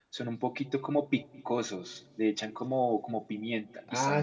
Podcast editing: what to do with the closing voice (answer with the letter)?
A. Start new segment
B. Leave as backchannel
A